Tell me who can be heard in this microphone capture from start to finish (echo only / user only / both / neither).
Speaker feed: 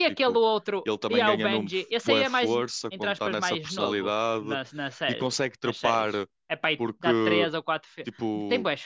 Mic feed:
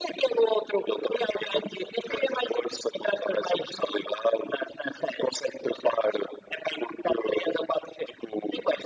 echo only